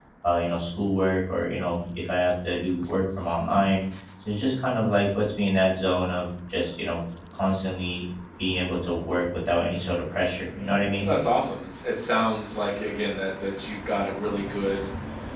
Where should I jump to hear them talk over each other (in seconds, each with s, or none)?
none